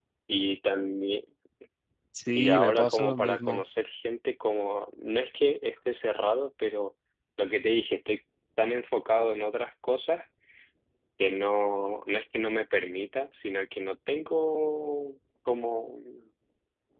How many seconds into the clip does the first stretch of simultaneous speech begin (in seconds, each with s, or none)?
2.4 s